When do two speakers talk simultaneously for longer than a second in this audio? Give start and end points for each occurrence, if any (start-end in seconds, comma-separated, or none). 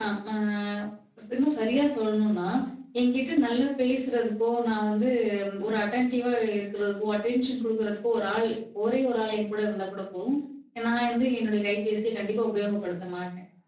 none